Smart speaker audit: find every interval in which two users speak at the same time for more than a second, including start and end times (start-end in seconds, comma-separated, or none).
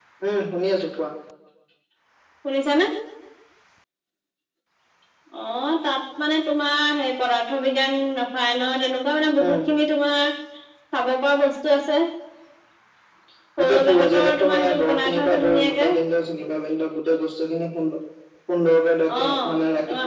13.6-15.9